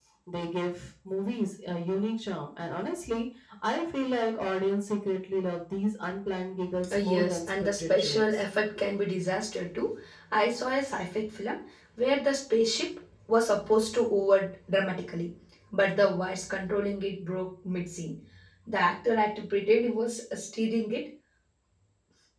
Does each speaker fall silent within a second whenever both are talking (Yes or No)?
No